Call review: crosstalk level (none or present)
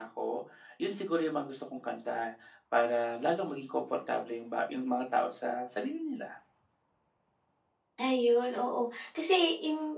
none